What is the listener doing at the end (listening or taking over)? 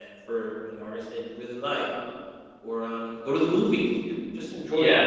taking over